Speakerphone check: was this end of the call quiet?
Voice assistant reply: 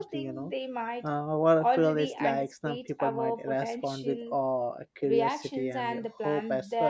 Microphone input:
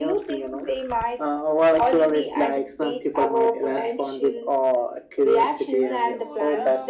No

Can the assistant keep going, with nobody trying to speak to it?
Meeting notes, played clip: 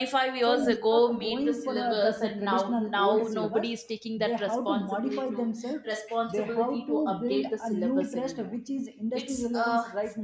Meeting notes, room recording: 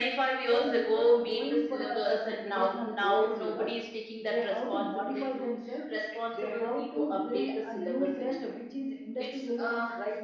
Yes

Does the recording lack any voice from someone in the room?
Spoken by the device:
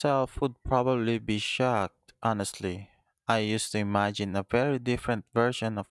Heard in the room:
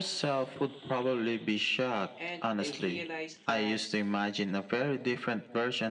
No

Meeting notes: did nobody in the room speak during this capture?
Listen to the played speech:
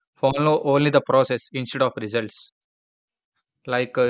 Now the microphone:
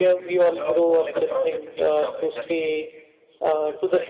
No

